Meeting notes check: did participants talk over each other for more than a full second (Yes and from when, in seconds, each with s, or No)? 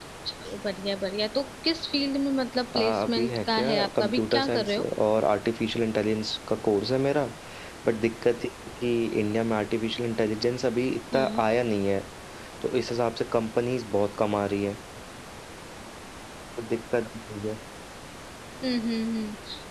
Yes, from 2.7 s